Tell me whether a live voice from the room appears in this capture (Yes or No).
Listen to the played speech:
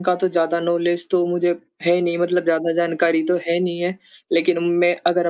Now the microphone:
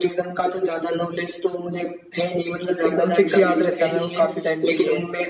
Yes